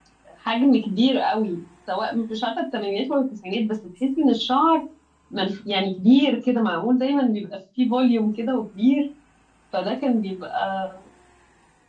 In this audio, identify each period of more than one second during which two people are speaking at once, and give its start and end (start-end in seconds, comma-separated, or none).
none